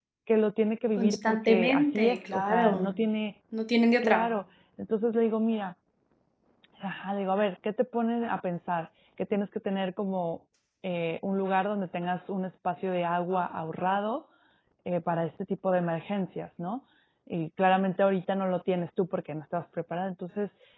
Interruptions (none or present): present